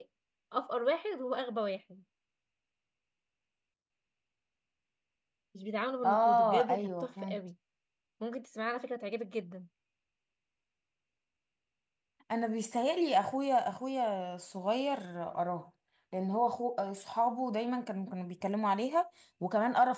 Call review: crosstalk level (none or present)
present